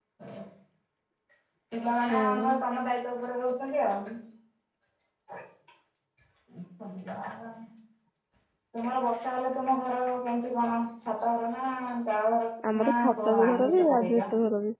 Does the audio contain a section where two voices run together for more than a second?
Yes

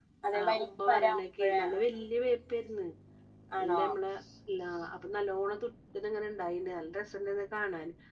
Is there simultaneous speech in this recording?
Yes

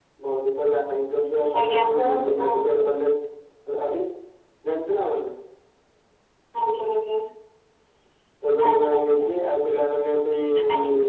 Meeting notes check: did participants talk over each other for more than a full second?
Yes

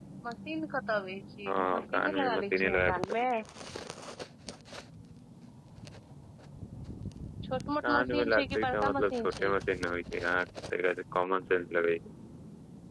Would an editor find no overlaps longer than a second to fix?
No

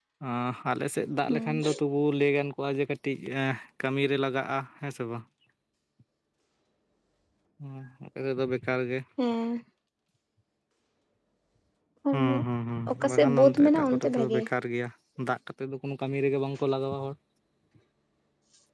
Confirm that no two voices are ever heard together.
No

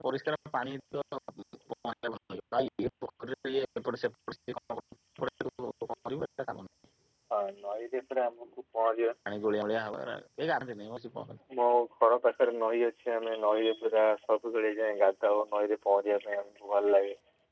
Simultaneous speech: No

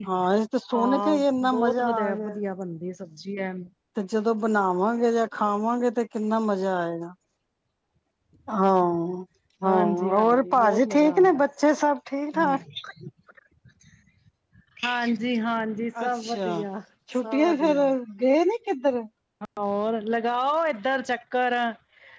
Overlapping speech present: Yes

